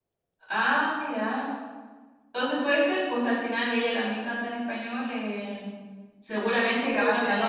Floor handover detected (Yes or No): Yes